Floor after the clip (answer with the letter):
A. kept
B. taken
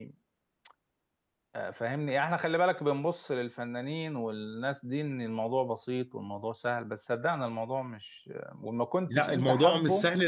B